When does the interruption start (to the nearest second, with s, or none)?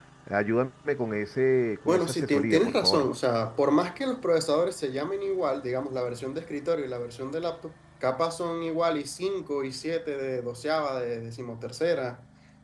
2 s